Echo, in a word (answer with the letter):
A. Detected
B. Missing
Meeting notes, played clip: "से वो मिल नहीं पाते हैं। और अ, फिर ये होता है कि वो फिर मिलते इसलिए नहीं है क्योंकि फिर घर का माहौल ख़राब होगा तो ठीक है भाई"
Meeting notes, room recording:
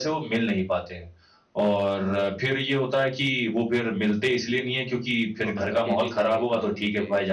A